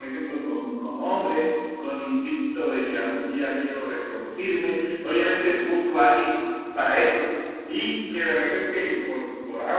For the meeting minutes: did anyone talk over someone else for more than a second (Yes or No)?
No